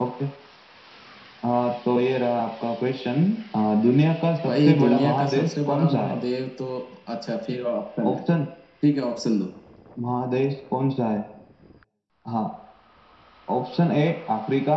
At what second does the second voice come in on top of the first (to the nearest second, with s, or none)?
4 s